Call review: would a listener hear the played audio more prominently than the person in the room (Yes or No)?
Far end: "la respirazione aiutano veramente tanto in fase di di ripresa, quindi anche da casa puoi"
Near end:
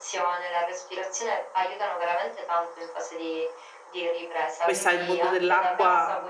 No